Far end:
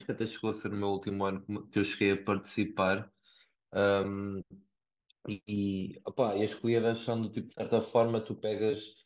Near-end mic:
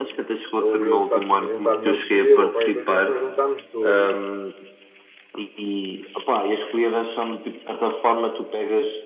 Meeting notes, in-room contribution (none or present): present